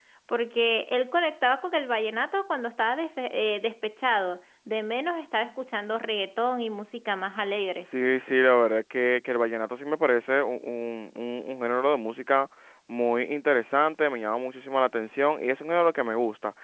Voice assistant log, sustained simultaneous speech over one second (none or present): none